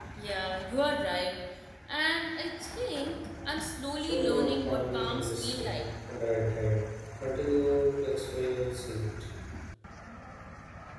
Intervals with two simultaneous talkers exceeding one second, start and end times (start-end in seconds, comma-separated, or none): 4.0-5.8